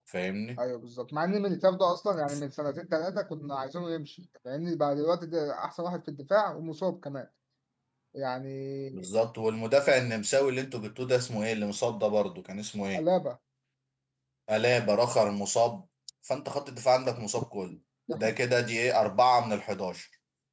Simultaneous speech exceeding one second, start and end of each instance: none

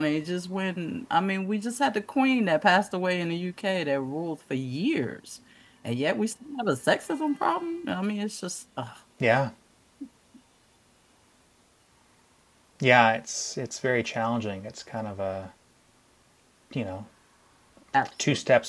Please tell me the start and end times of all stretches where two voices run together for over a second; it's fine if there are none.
none

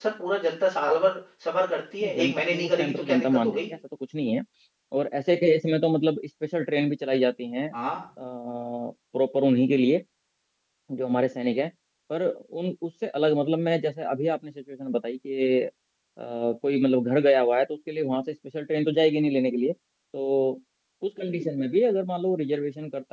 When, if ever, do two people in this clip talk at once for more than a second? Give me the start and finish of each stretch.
2.0-3.7

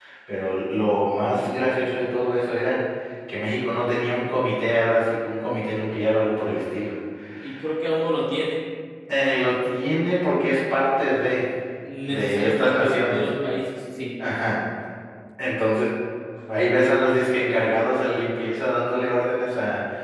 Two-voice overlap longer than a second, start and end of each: 12.1-13.3

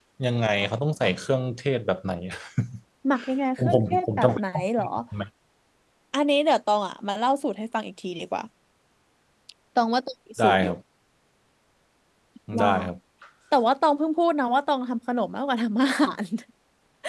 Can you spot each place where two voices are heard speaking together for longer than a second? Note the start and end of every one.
3.6-4.8

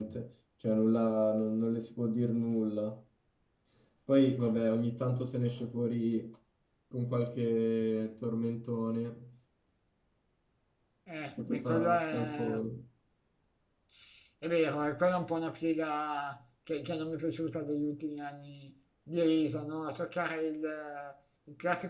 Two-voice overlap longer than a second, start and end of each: 11.4-12.6

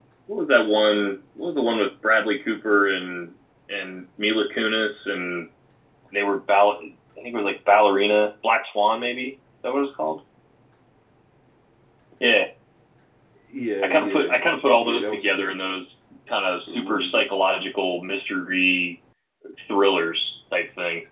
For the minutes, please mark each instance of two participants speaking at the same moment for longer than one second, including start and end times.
13.8-15.5

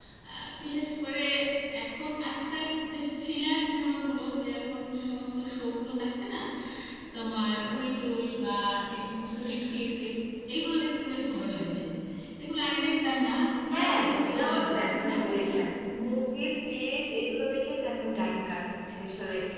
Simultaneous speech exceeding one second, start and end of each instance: 13.7-15.5

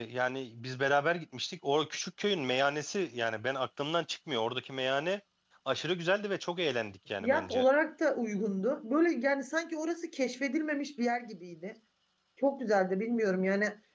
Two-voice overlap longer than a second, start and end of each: none

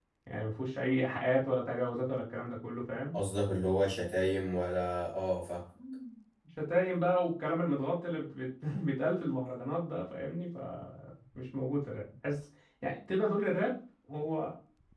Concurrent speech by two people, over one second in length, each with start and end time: none

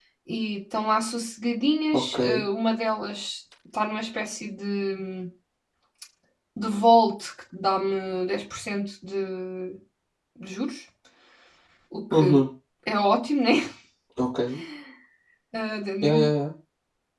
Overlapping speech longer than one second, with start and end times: none

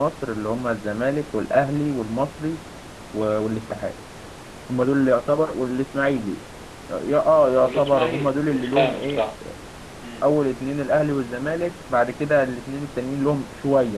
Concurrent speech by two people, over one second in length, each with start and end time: 7.6-9.2

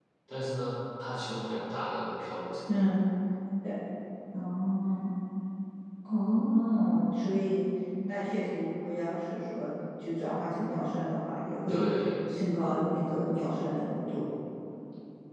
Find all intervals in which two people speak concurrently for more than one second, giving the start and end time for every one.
none

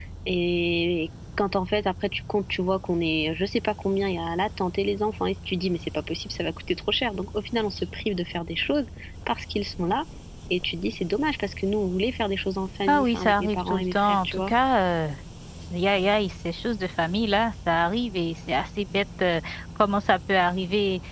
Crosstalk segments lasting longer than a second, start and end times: 12.9-14.5

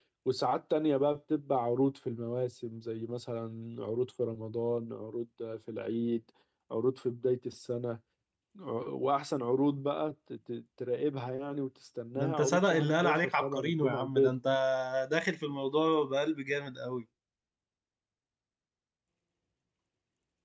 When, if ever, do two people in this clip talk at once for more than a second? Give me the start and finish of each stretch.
12.2-14.3

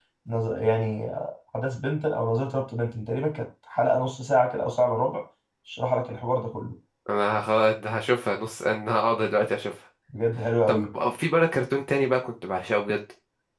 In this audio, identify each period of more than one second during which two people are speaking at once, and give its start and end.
none

